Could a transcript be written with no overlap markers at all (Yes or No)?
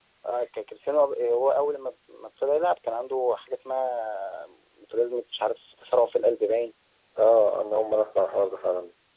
Yes